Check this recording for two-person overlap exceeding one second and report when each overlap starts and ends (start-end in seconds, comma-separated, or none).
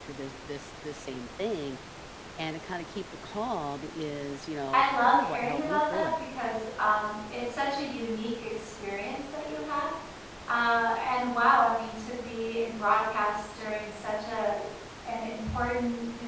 4.7-6.2